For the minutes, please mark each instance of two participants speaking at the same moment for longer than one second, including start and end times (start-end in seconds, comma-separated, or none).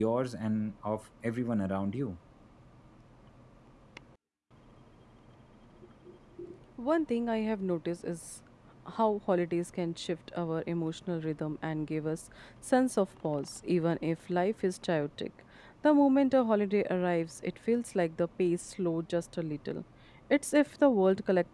none